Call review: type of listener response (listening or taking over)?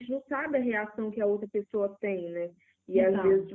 listening